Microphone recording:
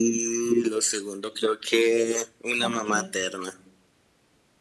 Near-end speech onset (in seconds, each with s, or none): 2.6 s